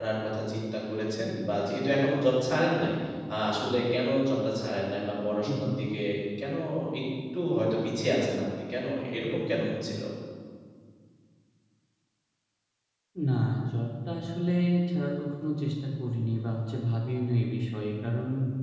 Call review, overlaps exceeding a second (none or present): none